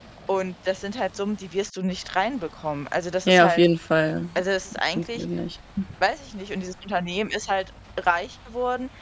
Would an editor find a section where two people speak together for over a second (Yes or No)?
No